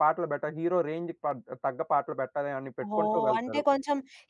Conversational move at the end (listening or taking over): taking over